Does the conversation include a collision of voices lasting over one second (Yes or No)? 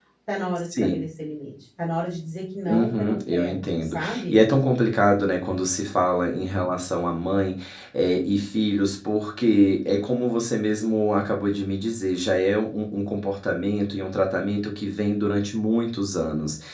Yes